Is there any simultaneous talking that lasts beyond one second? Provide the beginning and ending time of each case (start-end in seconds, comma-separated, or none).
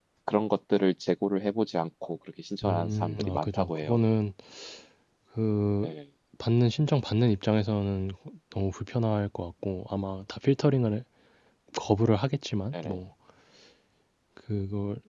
2.6-4.0